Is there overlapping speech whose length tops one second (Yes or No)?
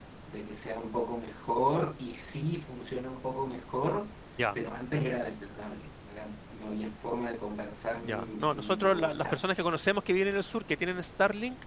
Yes